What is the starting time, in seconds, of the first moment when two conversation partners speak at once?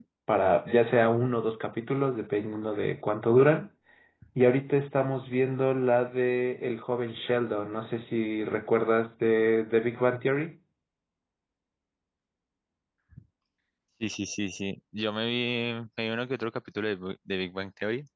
none

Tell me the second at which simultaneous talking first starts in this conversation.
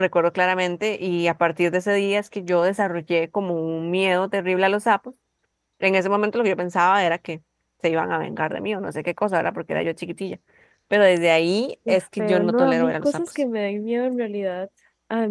12 s

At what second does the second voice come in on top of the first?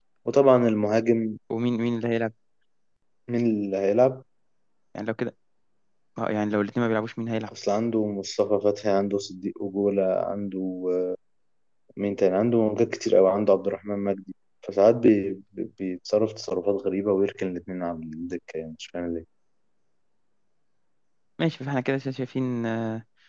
none

